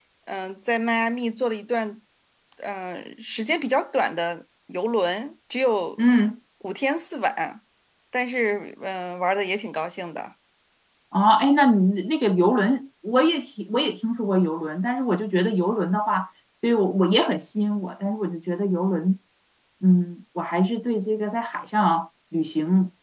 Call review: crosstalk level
none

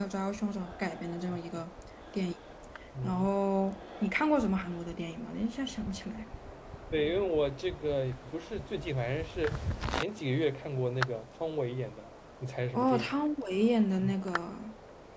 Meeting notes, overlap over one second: none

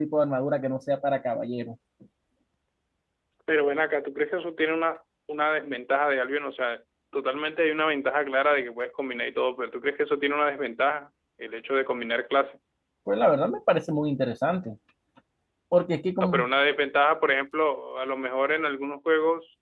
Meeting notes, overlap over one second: none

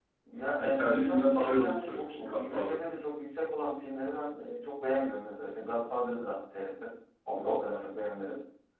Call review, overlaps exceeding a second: present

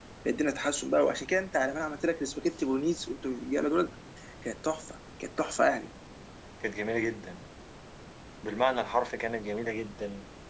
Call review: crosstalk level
none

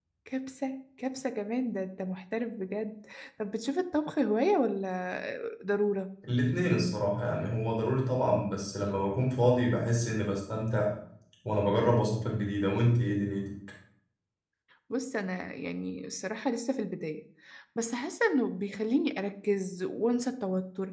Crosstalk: none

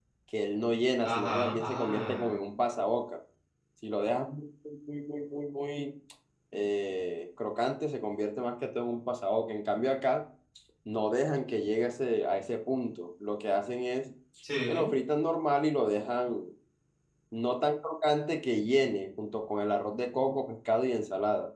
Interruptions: present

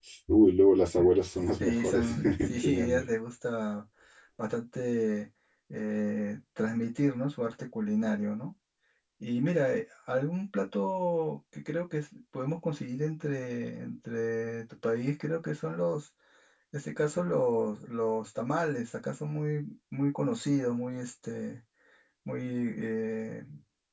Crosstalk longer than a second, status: present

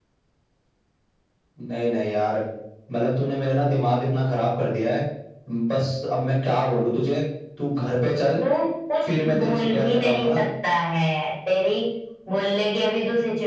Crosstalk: present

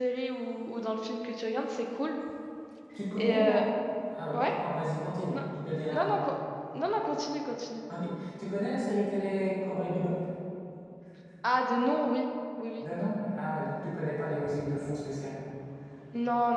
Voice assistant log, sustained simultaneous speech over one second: none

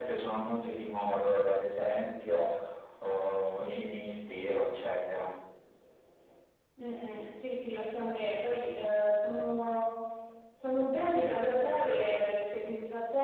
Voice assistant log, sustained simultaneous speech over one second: none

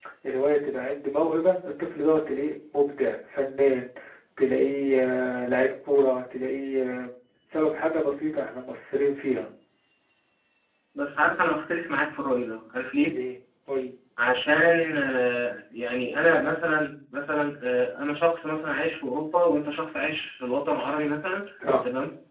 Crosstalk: none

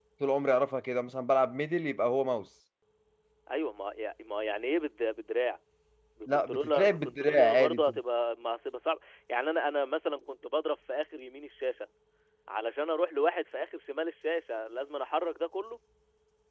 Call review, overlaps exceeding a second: present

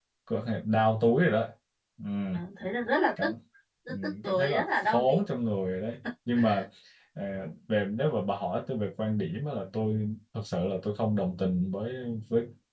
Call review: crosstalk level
present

